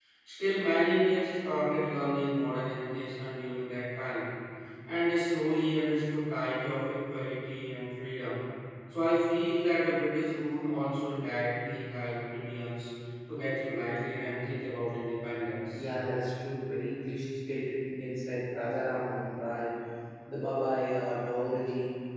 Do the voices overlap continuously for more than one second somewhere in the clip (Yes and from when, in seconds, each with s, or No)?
No